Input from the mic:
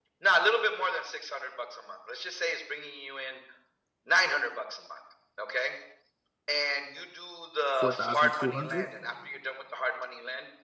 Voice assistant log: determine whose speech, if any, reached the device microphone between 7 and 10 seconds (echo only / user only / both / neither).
both